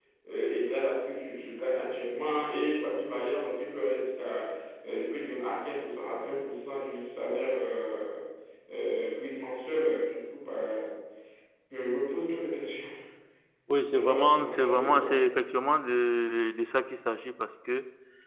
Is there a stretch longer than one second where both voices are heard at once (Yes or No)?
Yes